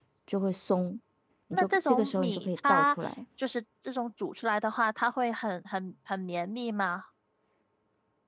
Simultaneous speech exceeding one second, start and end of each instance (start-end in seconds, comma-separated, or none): 1.5-3.0